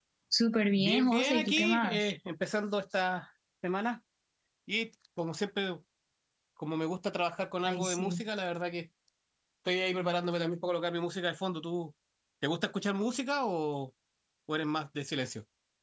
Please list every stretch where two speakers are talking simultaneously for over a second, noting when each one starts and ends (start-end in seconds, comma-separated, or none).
0.8-2.1